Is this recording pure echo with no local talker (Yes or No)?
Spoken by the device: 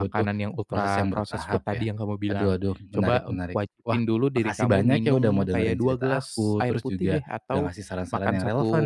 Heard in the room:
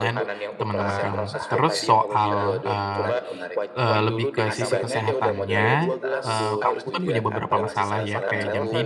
No